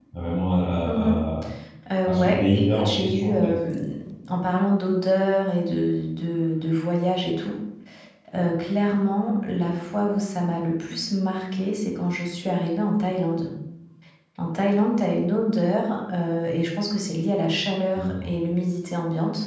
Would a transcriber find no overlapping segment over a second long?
No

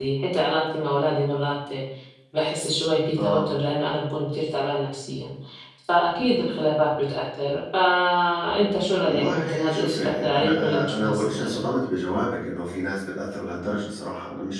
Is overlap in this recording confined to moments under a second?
No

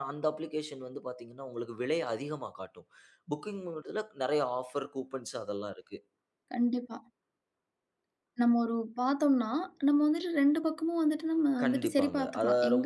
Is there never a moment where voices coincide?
No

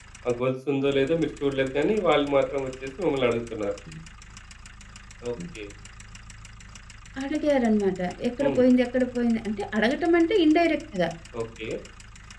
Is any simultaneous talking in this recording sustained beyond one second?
No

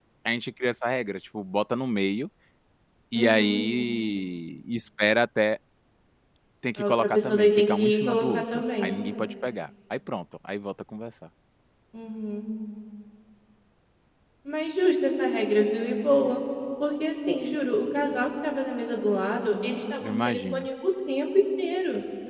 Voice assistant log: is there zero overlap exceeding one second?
No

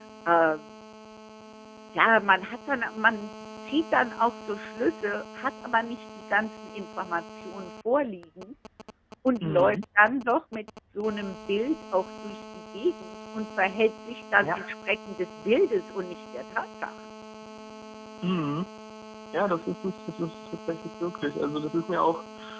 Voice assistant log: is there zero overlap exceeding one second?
Yes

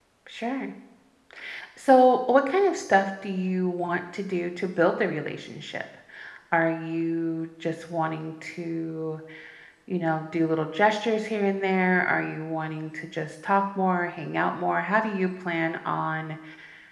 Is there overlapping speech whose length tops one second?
No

